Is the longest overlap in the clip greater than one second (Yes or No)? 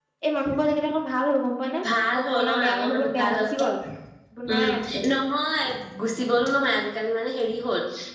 Yes